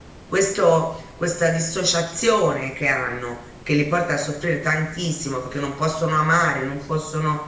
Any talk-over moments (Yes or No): No